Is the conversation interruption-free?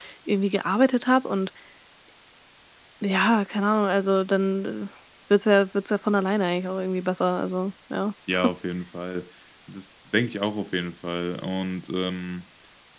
Yes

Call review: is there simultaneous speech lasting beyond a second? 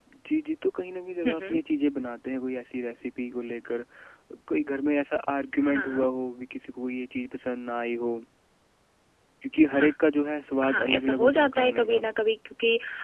Yes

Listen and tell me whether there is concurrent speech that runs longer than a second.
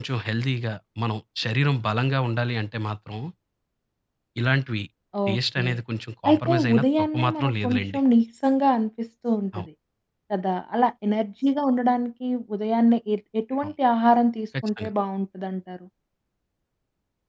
Yes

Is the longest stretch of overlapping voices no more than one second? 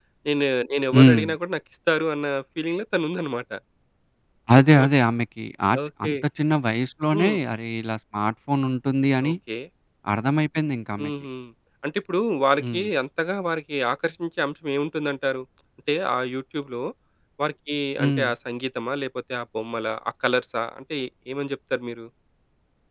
Yes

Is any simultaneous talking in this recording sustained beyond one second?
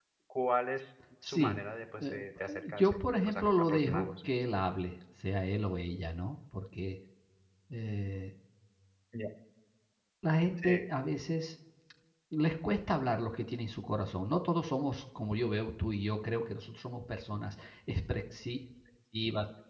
Yes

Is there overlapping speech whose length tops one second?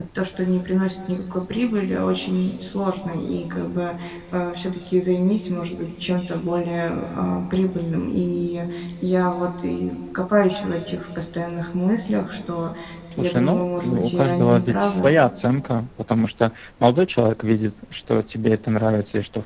Yes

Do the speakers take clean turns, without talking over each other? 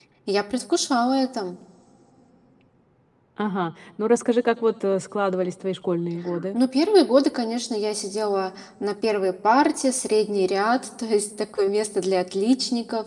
Yes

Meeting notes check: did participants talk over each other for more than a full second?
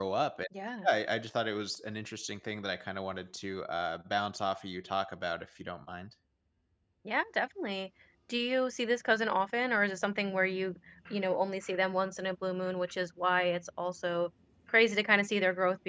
No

